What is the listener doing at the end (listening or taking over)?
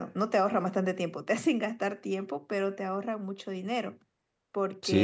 listening